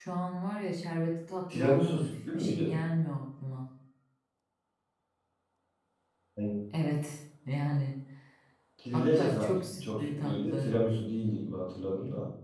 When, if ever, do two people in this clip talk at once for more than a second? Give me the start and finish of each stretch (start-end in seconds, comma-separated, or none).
1.5-2.8, 8.9-10.8